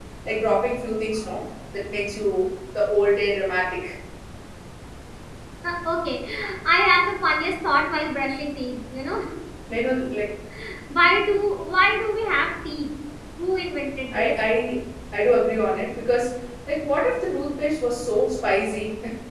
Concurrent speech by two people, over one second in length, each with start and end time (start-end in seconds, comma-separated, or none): none